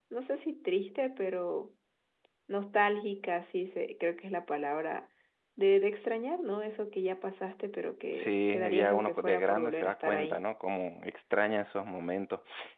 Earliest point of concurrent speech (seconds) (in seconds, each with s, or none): 8.1 s